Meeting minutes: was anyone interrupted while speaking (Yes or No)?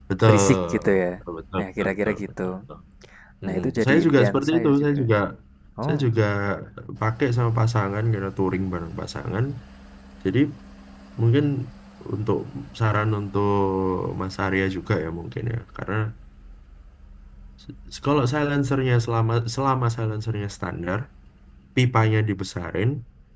Yes